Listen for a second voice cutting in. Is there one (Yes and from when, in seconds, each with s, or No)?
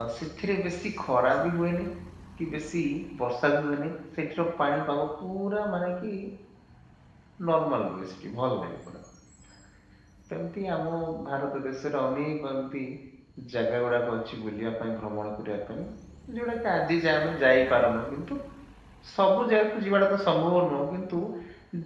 No